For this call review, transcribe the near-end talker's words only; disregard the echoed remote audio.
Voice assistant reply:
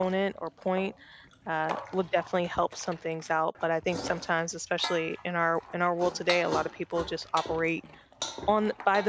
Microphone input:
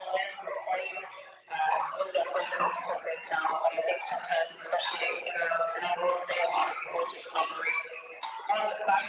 none

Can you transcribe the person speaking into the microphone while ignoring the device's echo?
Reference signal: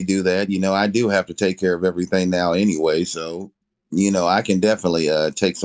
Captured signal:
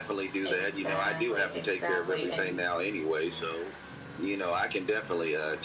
exactly, exactly. And

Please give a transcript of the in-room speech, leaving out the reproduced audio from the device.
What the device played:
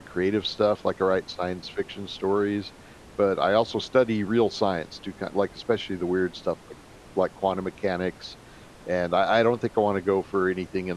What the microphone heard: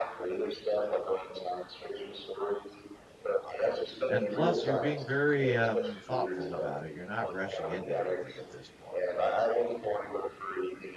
and plus you're being very um, thoughtful about it. You're not rushing into anything at this point.

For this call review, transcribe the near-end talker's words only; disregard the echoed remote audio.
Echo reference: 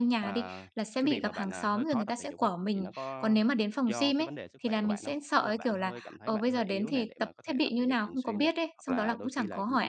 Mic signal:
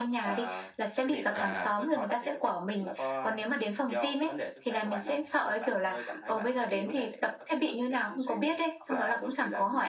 À.

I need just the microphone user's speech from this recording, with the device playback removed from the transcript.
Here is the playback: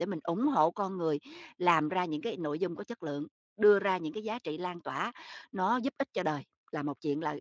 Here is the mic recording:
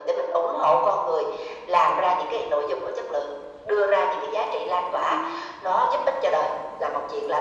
none

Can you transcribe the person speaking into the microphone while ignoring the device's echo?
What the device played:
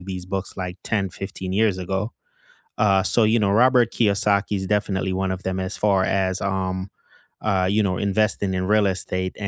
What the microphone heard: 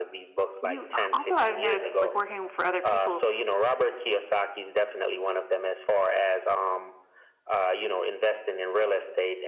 You also, I've noticed, like, working for other people,

